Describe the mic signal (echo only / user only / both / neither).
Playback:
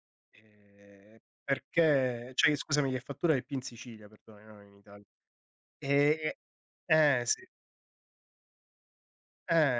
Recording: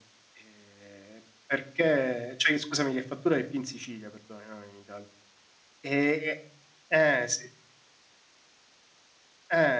echo only